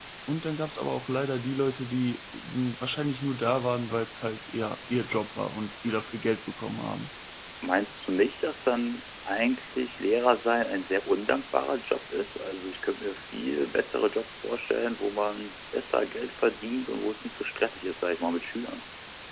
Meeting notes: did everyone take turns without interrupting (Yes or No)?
Yes